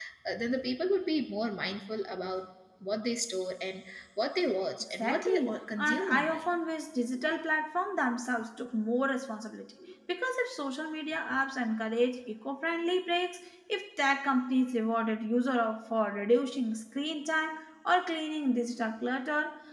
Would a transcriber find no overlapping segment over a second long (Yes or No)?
No